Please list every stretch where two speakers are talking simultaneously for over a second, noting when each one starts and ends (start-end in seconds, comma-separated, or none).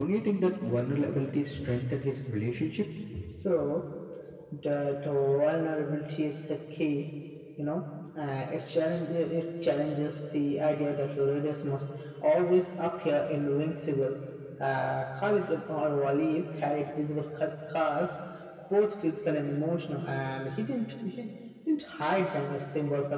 none